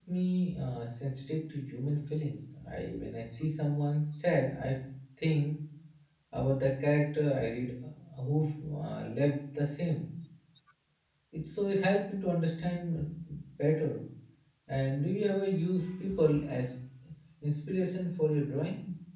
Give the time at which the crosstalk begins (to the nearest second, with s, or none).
none